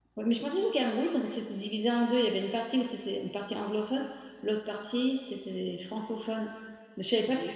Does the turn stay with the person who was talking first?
Yes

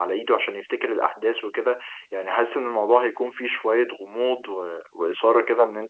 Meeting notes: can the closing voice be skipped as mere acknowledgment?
Yes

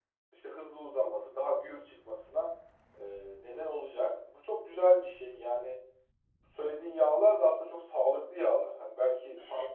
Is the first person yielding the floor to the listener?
Yes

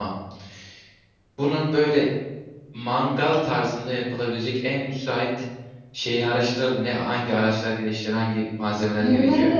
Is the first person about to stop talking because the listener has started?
Yes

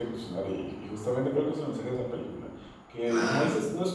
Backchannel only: Yes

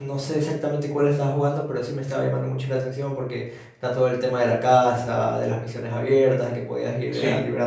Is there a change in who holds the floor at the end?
No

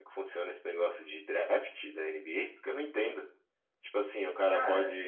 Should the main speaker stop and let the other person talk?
No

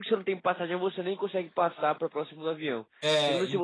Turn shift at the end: No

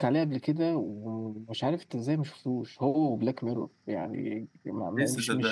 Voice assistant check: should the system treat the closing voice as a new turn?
No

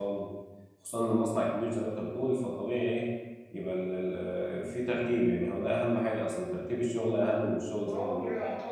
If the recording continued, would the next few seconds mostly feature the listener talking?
Yes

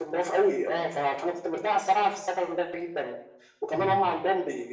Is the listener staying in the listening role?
Yes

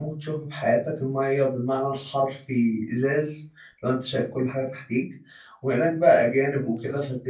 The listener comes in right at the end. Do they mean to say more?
No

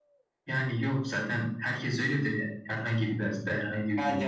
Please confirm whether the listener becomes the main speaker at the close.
Yes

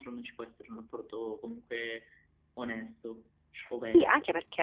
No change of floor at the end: No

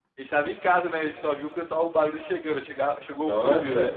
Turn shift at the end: Yes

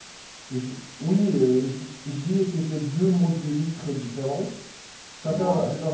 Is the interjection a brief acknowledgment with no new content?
Yes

